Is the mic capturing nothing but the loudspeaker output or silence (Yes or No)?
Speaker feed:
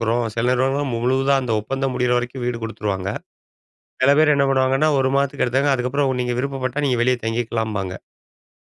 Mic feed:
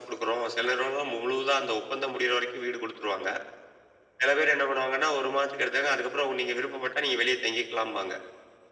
Yes